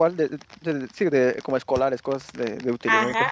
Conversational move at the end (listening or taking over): taking over